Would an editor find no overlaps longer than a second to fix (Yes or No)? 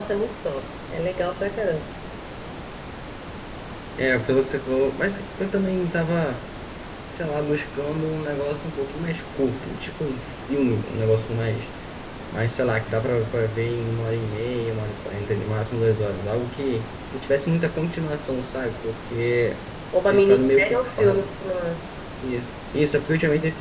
No